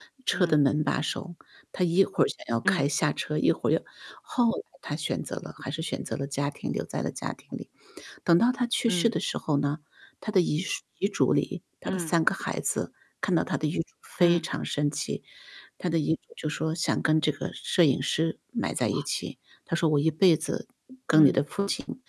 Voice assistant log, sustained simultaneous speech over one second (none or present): none